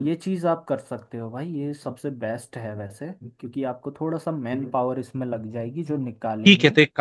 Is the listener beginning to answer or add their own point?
Yes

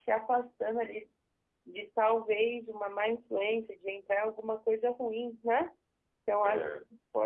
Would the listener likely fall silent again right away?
Yes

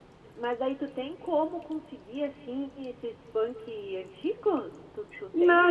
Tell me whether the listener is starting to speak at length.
Yes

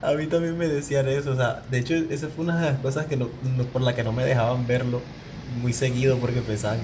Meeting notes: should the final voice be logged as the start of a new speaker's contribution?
No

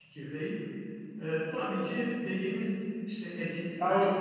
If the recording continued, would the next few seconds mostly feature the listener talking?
No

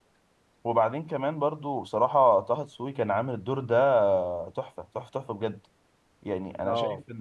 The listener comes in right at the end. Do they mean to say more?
No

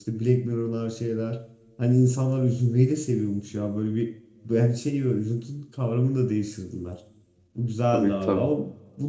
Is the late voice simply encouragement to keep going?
Yes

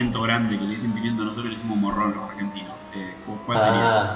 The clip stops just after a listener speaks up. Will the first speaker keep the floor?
No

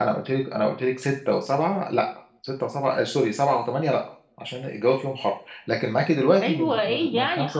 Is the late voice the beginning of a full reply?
Yes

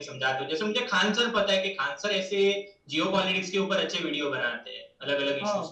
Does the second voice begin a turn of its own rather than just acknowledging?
Yes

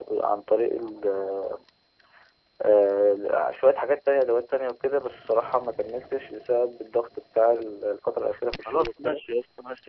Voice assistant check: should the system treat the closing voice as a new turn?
Yes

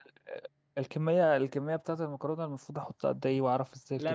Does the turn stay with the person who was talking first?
No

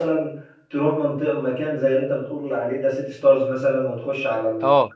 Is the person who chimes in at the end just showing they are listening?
Yes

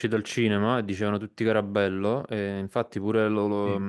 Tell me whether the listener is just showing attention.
Yes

